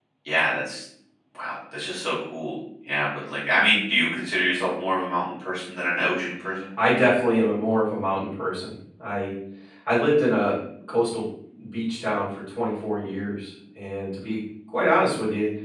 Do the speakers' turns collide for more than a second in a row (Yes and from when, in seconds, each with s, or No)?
No